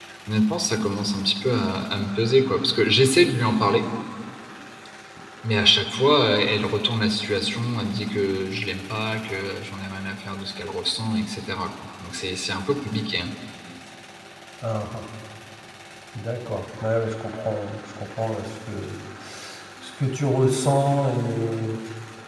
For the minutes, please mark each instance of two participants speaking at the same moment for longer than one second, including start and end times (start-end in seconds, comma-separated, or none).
none